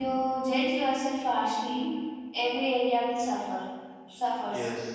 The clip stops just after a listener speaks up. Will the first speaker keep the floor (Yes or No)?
No